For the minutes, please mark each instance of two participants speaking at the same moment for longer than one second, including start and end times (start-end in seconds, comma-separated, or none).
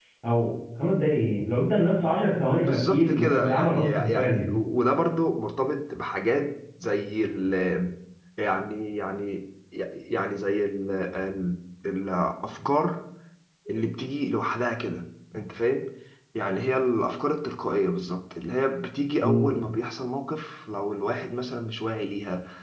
2.6-4.6